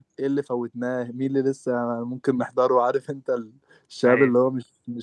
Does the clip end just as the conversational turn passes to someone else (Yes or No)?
No